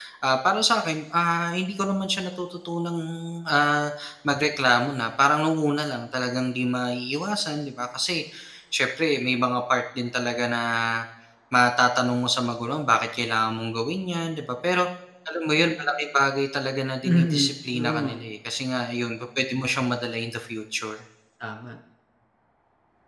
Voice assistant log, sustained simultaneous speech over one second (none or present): present